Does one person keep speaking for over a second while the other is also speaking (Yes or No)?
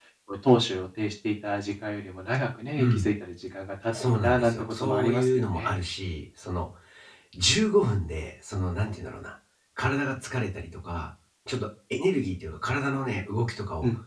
Yes